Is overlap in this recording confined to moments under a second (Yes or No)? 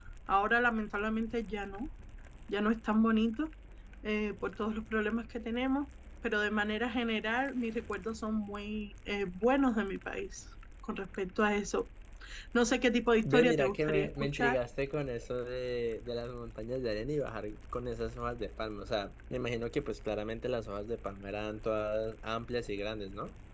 No